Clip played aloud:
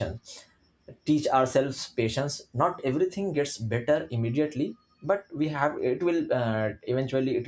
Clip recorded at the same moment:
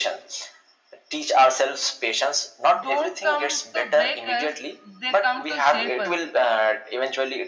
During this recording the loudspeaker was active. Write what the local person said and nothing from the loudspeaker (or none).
don't come to break us they come to shape us